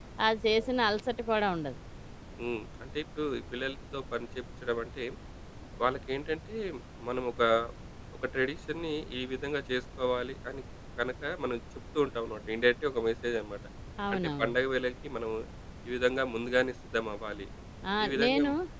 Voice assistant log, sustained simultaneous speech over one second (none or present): none